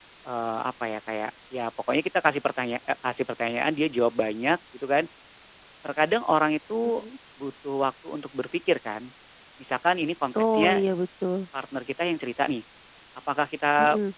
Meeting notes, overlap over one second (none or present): none